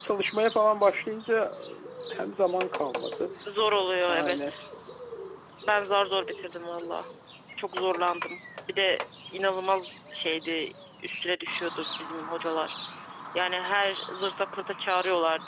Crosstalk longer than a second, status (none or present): none